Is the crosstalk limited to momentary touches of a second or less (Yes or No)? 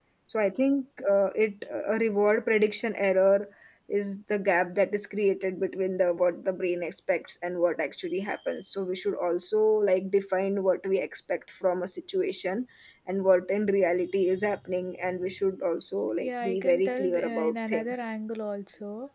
No